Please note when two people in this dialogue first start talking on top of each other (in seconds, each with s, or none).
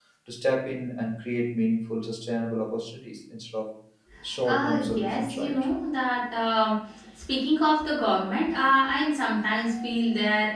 4.4 s